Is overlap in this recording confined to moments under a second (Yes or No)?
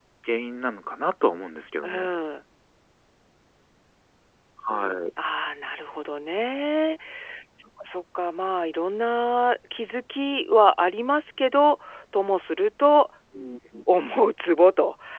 Yes